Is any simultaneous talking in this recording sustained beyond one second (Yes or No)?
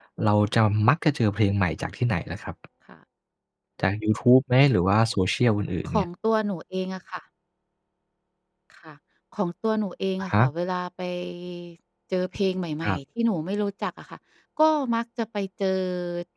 No